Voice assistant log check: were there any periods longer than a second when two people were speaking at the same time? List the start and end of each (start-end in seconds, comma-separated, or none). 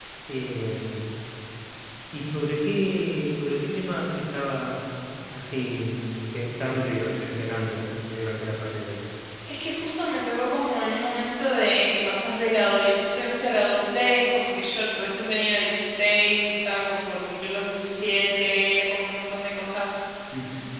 none